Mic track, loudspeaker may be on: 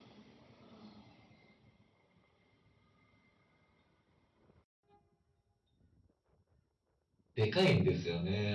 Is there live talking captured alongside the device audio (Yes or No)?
Yes